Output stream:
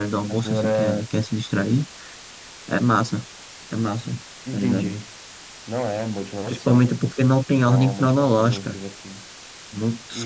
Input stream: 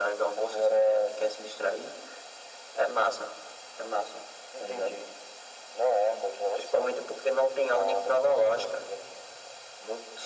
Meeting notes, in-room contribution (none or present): none